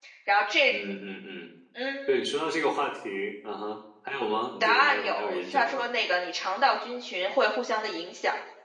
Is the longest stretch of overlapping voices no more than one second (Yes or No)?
No